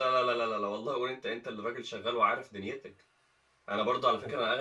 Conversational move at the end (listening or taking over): listening